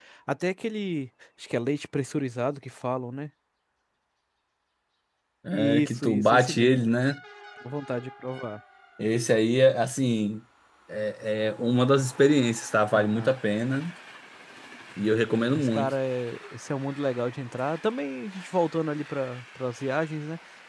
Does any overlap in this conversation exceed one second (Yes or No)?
Yes